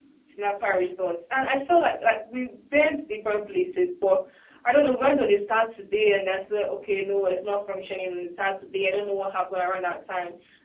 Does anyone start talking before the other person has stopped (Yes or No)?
No